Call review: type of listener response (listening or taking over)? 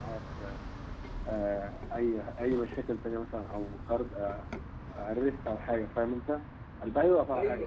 listening